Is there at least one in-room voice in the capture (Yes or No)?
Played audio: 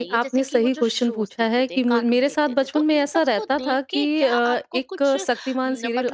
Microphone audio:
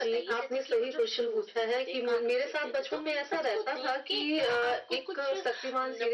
No